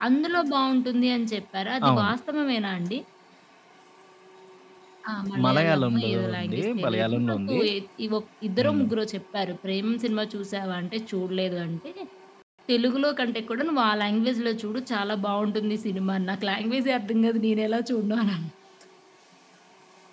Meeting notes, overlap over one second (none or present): present